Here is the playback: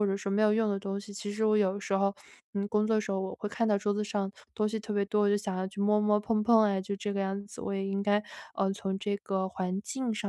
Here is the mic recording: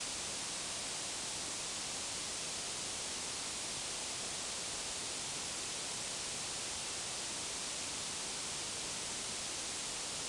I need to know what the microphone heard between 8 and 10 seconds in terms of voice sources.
neither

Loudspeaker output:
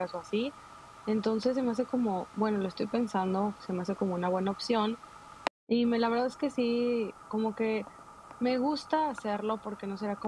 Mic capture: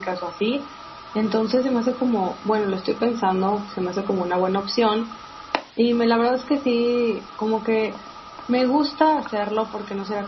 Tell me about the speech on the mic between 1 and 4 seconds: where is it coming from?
echo only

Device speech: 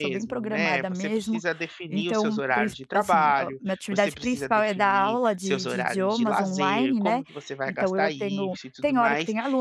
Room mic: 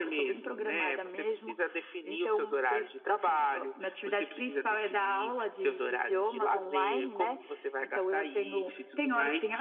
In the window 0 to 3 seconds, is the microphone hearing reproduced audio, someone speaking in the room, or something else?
echo only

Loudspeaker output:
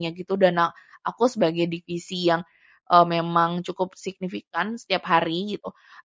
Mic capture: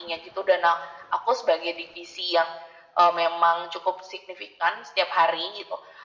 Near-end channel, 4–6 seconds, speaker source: echo only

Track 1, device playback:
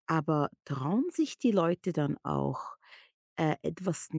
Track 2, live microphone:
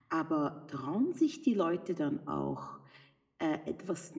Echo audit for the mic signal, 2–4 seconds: echo only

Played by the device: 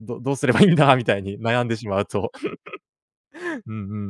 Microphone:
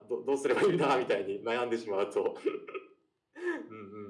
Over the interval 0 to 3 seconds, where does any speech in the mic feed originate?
echo only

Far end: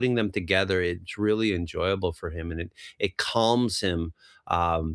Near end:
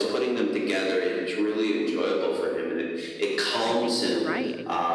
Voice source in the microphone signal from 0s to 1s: echo only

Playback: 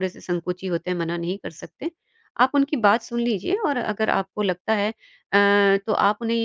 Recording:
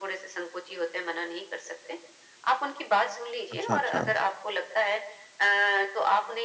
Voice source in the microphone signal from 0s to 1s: echo only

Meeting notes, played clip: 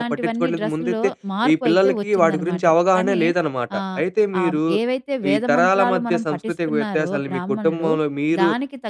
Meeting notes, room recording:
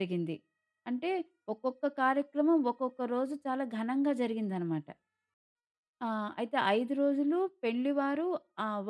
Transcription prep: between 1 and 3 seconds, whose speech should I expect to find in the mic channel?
user only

